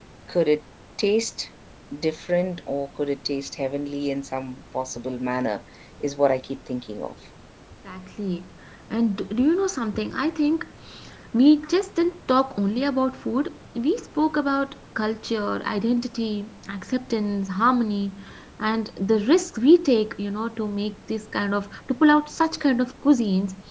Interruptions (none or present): none